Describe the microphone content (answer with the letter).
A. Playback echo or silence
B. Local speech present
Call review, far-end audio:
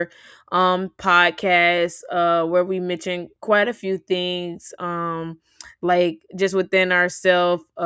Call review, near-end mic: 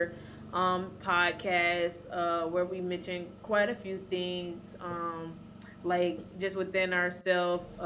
A